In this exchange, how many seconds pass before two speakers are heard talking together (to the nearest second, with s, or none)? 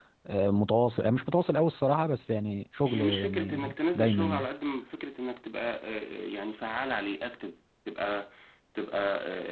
3 s